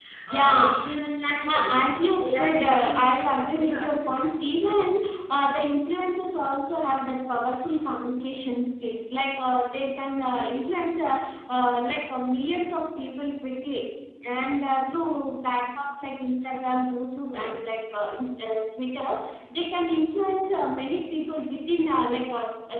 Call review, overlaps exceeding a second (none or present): present